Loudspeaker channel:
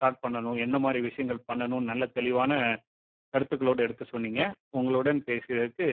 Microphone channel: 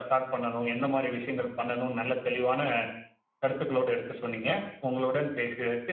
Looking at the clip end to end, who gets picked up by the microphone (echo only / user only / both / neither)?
echo only